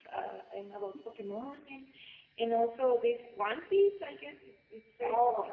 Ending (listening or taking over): taking over